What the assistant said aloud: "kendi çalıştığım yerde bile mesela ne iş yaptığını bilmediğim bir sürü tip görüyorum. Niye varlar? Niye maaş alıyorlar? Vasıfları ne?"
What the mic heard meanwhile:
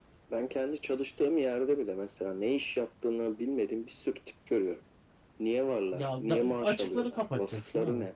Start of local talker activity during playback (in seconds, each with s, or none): 5.9 s